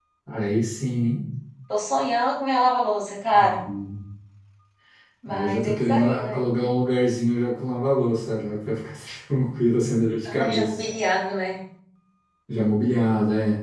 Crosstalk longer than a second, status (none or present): present